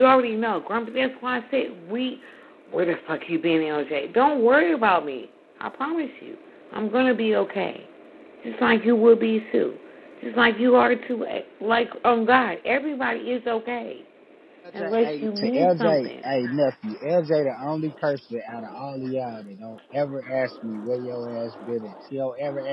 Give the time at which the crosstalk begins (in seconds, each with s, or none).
14.8 s